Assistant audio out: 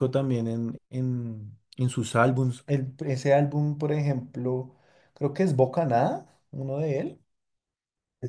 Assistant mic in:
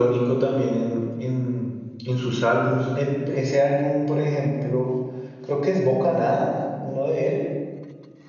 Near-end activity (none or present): none